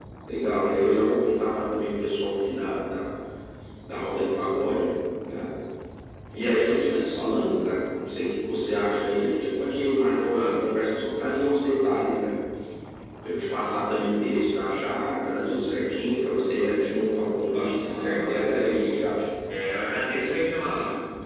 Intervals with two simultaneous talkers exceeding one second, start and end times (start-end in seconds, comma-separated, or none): 17.3-19.2